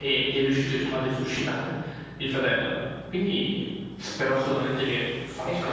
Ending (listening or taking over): taking over